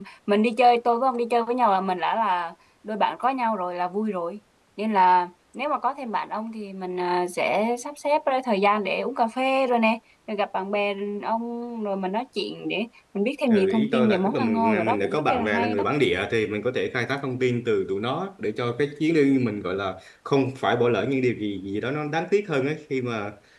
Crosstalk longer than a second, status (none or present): present